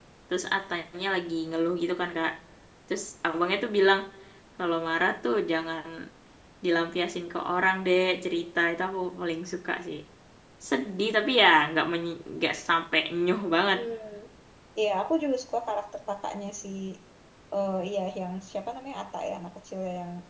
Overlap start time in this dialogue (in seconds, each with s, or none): none